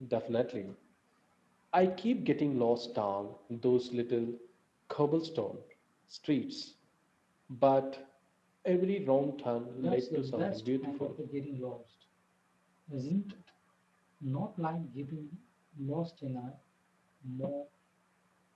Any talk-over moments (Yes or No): Yes